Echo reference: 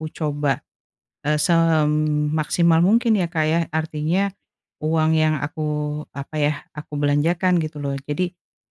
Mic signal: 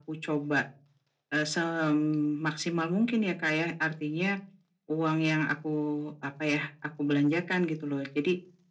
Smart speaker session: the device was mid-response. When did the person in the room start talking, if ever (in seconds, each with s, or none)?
none